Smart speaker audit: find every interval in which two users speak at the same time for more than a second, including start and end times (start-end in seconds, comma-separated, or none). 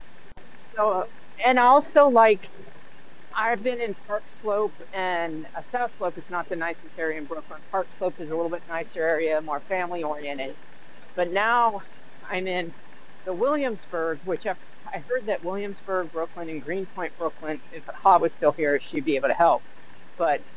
none